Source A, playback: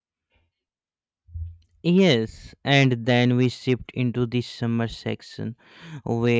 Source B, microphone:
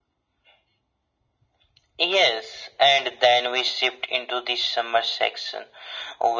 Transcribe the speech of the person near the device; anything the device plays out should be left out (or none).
none